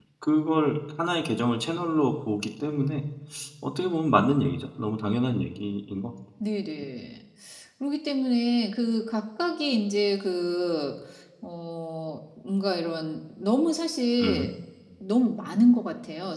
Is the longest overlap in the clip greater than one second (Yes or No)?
No